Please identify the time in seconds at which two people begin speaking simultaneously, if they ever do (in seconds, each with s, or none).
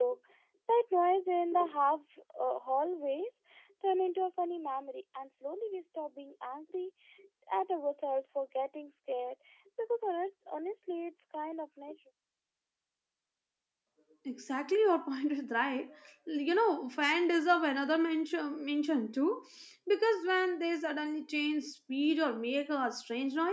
none